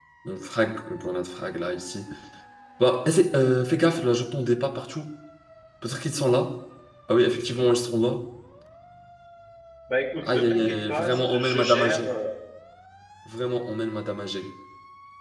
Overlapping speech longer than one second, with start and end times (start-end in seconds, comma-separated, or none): 10.3-12.0